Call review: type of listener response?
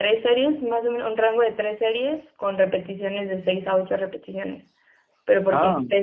listening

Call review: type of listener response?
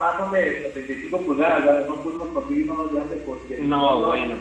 taking over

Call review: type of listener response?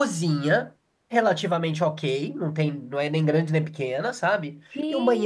listening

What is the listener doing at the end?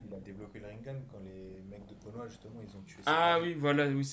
taking over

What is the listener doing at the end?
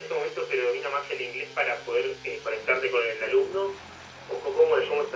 taking over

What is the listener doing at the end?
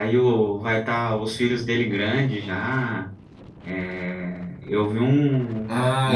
taking over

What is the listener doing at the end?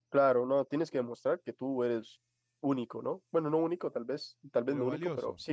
listening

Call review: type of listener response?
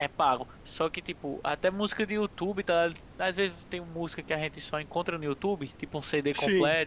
listening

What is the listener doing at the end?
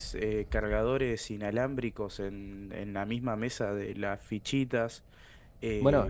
taking over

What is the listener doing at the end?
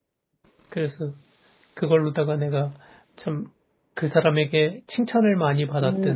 taking over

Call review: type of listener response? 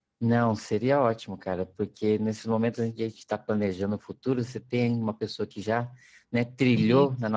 listening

